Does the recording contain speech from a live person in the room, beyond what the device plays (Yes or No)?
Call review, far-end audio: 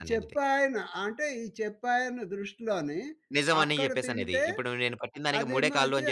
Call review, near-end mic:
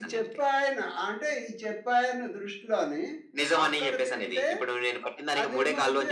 No